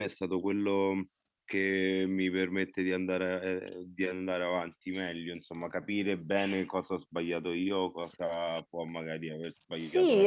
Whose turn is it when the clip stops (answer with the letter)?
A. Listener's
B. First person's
A